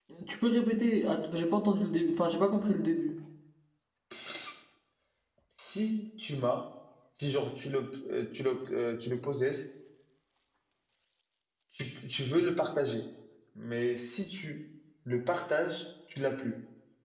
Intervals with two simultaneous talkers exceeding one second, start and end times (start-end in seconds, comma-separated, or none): none